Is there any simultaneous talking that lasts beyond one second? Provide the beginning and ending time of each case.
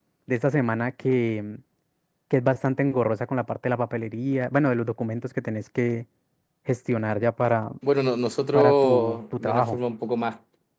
8.5-9.8

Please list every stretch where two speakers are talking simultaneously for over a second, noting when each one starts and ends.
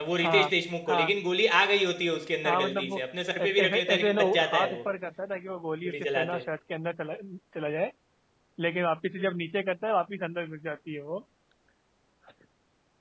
3.4-4.8

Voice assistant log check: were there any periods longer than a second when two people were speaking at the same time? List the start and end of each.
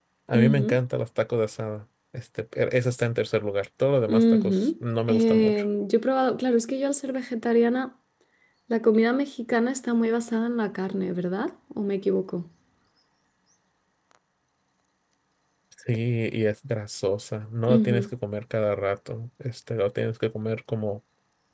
4.1-5.6

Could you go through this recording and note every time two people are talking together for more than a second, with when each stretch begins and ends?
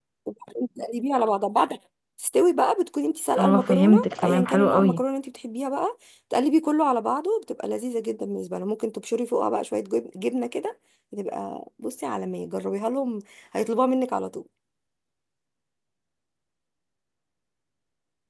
3.4-5.0

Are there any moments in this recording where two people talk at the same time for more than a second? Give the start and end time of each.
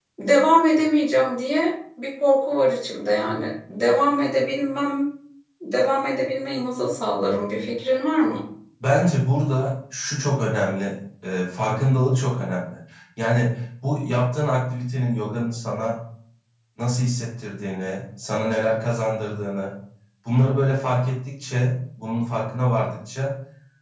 none

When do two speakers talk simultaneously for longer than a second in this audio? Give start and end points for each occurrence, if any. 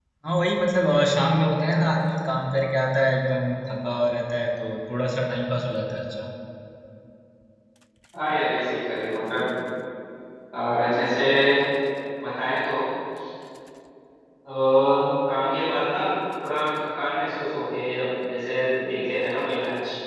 none

